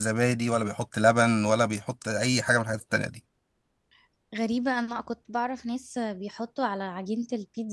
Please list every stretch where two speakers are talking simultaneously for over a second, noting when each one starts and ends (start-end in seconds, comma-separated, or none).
none